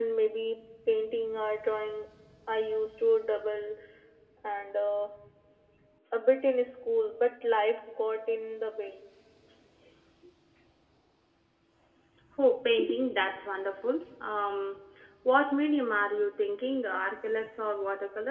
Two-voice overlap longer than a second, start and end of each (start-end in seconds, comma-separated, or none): none